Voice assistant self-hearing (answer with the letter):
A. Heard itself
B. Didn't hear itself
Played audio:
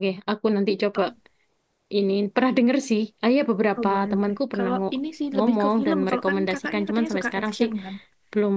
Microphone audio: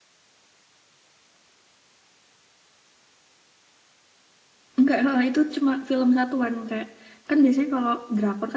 B